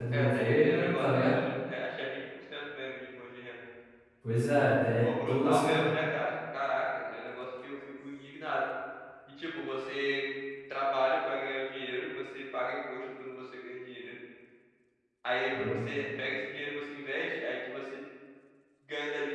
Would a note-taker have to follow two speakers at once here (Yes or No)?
Yes